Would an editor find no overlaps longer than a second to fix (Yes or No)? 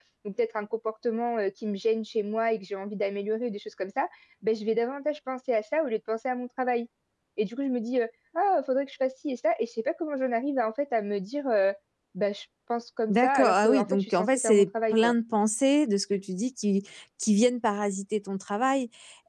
No